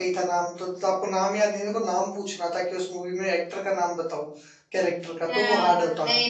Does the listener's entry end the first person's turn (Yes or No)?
Yes